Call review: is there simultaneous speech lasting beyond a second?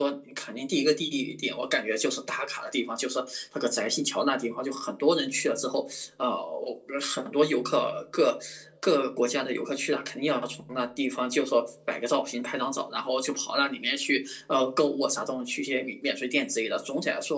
No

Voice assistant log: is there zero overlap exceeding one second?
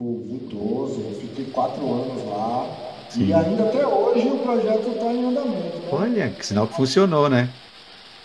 Yes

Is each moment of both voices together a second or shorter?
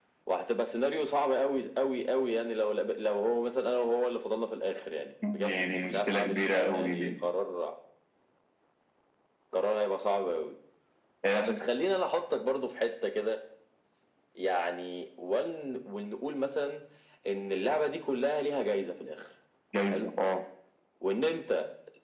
No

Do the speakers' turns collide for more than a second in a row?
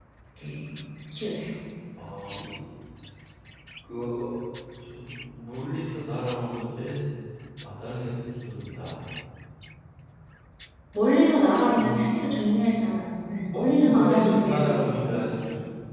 Yes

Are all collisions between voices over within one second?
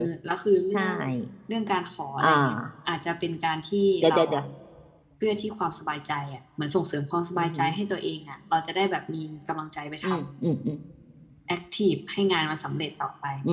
Yes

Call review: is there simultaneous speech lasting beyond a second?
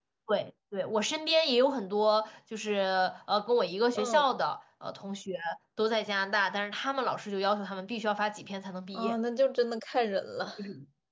No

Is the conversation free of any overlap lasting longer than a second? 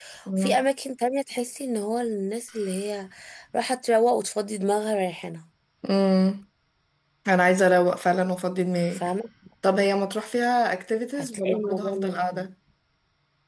No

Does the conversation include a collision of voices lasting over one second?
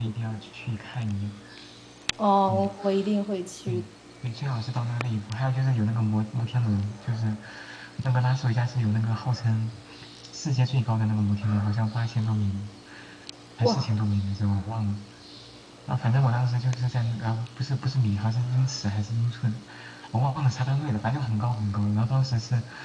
No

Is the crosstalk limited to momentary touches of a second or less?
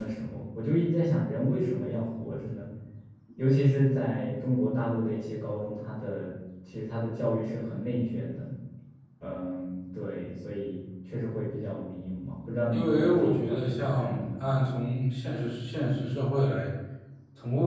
No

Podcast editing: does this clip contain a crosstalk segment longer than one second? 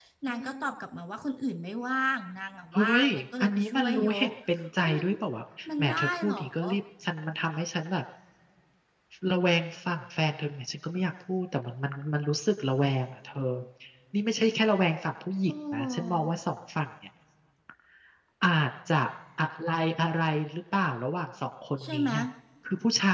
Yes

